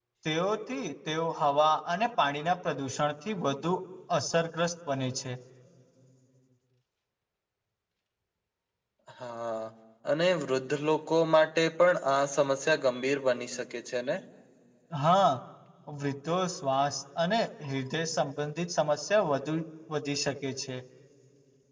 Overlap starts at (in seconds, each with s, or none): none